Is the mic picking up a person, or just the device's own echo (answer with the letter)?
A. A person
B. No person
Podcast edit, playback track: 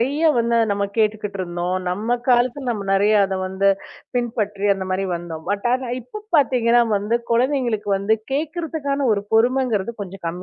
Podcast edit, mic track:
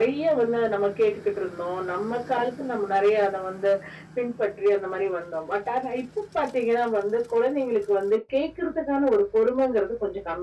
B